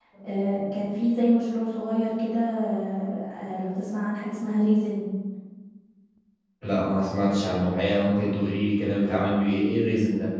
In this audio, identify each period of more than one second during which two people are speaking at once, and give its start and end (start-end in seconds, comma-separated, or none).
none